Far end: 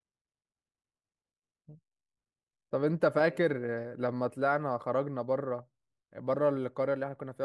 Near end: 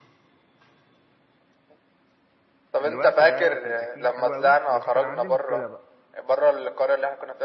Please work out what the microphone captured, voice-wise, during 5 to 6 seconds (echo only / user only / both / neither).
both